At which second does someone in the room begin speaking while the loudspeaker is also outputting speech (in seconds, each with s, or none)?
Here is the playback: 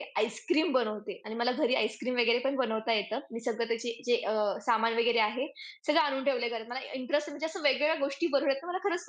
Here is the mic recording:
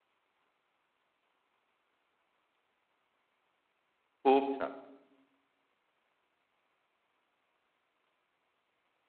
4.2 s